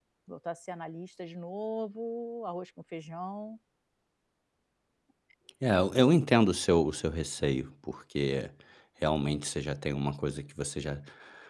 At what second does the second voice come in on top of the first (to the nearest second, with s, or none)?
none